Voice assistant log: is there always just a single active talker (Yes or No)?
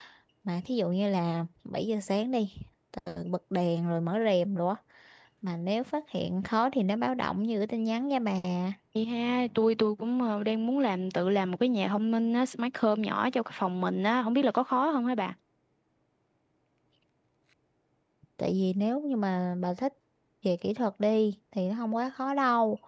Yes